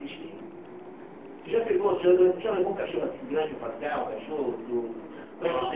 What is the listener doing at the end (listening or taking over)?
taking over